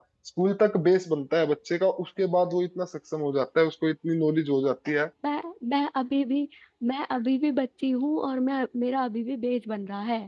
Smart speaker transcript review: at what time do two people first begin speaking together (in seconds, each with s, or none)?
none